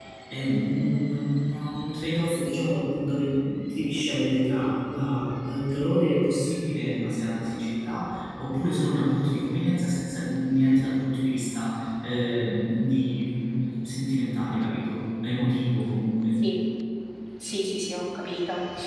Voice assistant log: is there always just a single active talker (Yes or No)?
Yes